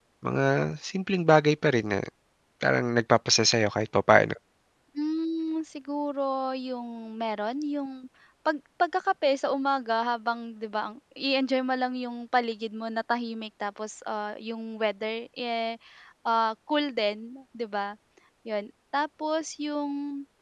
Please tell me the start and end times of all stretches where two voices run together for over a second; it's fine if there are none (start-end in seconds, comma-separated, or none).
none